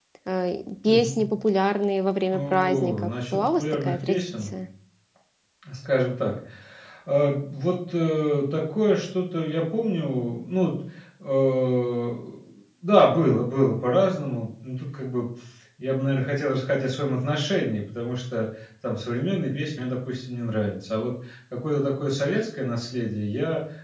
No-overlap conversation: No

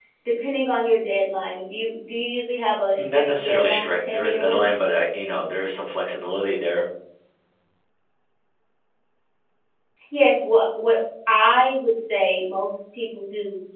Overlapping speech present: Yes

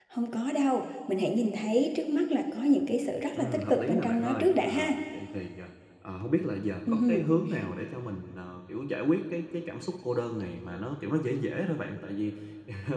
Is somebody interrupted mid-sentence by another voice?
Yes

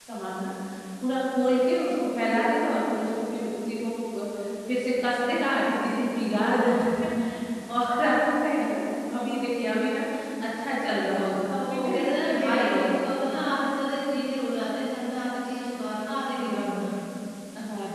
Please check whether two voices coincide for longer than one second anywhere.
Yes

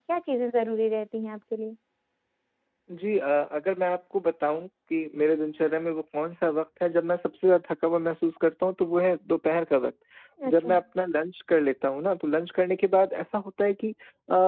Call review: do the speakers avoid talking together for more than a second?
Yes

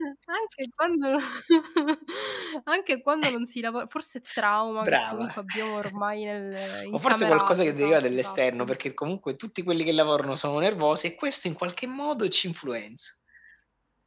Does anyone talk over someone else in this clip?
Yes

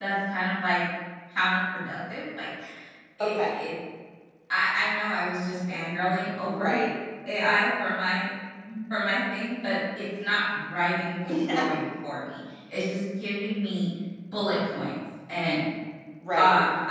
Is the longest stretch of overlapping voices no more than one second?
Yes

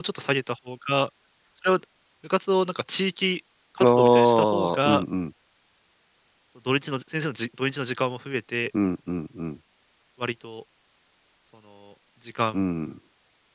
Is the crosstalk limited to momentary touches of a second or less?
No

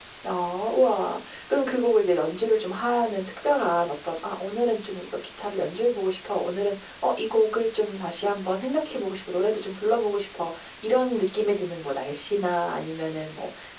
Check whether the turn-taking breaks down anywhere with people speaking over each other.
No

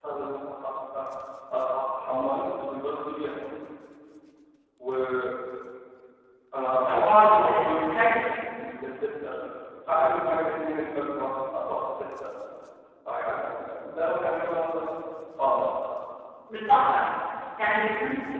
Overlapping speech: Yes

